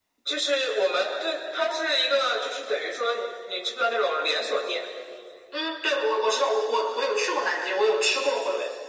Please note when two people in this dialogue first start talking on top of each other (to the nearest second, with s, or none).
none